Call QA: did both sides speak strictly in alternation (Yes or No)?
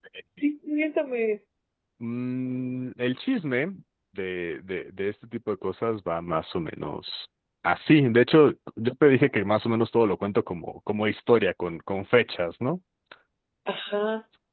Yes